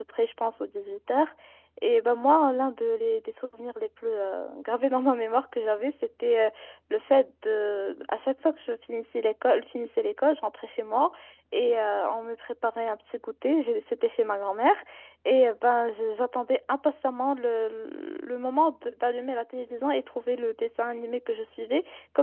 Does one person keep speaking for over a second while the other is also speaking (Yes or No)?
No